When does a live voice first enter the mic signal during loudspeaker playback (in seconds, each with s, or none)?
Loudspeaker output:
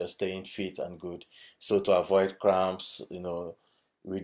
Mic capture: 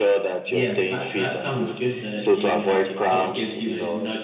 0.4 s